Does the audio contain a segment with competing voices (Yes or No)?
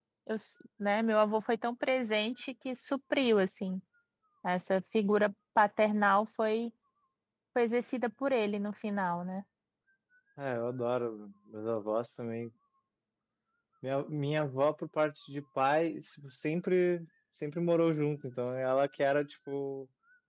No